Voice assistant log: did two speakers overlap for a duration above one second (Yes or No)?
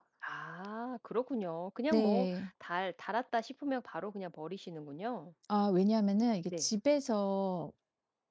No